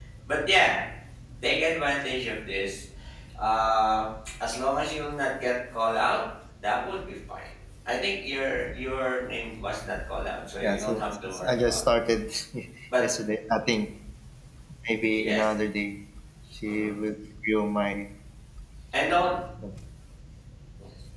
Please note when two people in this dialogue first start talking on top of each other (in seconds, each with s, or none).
10.6 s